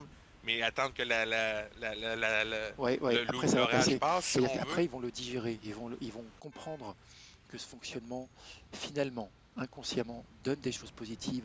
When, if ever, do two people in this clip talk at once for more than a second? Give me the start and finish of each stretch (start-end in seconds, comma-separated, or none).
3.1-4.8